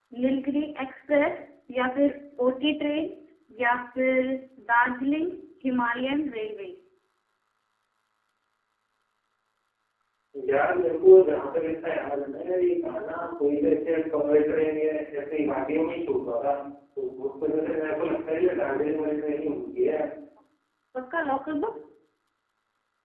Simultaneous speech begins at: none

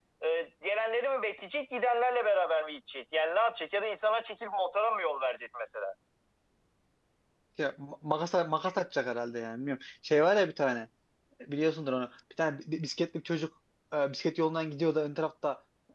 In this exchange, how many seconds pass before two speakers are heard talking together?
none

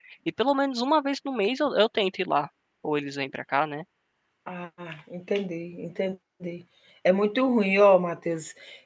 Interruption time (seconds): none

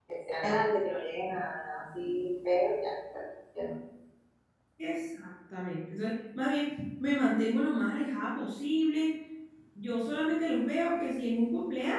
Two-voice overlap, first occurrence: none

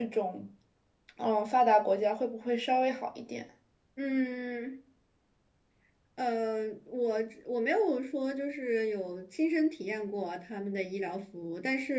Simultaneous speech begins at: none

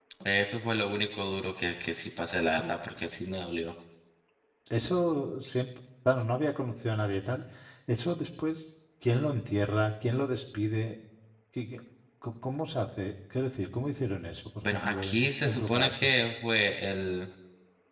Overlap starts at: 14.6 s

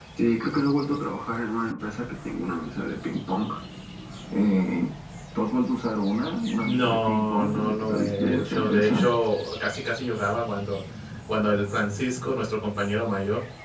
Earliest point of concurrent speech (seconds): 6.6 s

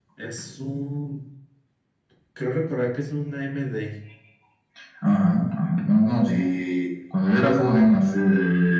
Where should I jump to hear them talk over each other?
none

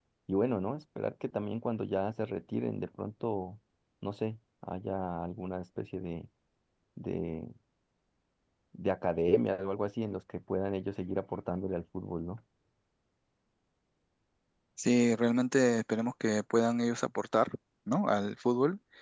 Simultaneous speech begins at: none

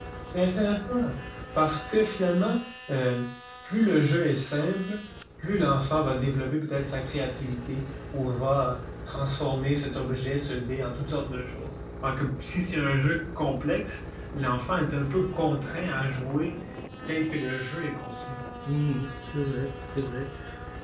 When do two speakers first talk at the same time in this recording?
none

